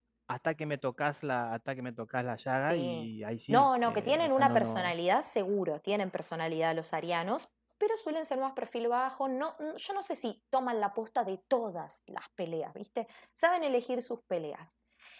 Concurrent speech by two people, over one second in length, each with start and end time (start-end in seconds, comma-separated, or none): 3.5-4.9